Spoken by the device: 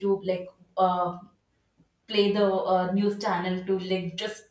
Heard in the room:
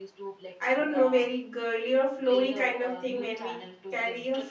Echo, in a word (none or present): present